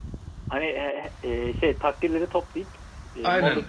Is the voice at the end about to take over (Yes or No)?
Yes